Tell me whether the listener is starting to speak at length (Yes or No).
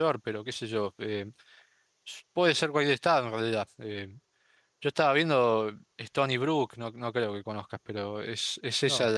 No